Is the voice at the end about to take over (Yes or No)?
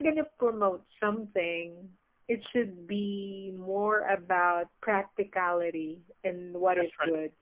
No